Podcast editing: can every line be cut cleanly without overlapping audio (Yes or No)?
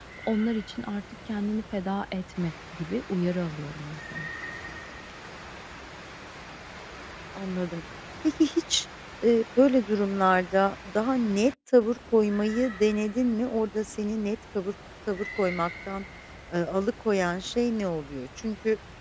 Yes